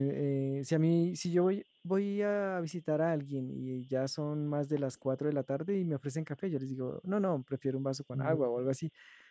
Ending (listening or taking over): listening